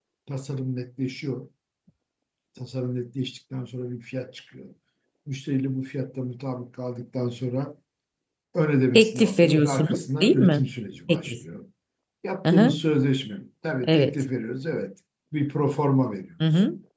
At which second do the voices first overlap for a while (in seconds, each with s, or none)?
8.9 s